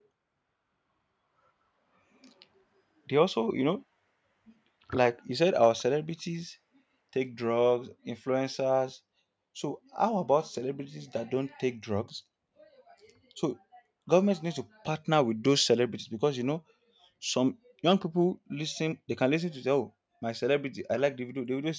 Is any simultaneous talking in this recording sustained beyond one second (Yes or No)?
No